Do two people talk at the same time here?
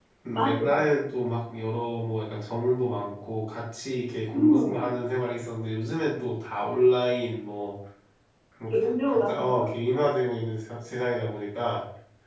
Yes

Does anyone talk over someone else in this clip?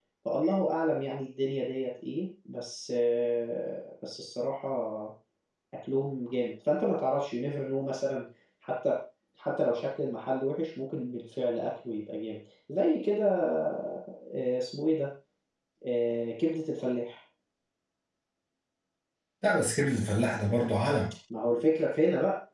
No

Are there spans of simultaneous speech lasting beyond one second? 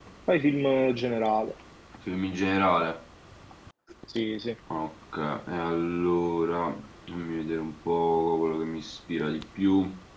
No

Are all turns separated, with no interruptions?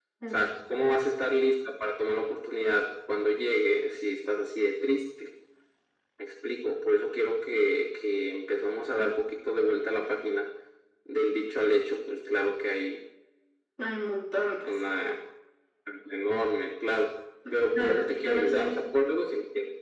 No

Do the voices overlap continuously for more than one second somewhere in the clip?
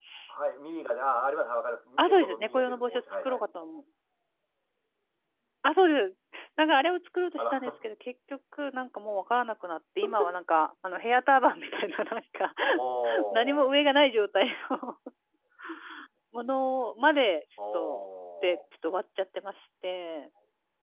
Yes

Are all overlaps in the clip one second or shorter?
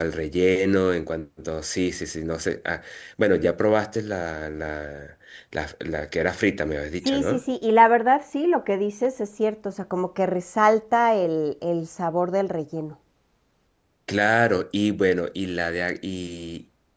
Yes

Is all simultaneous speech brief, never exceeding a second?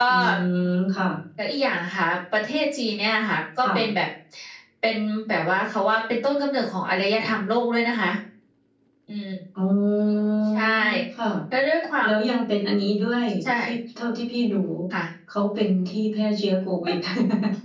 Yes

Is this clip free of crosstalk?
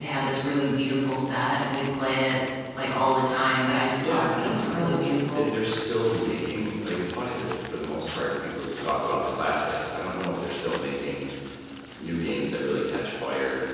No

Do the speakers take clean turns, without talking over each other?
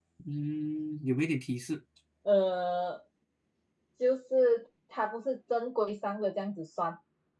Yes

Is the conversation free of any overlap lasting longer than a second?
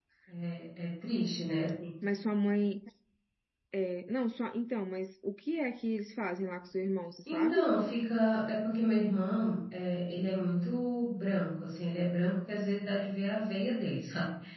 Yes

